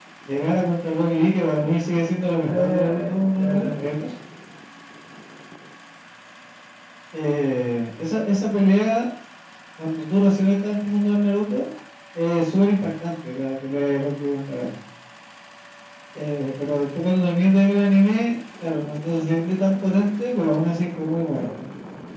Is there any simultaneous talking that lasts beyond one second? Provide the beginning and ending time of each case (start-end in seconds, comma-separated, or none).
2.4-4.1